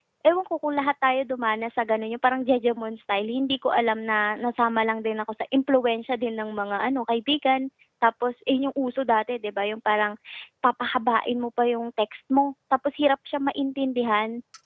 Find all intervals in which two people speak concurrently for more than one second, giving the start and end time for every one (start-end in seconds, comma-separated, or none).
none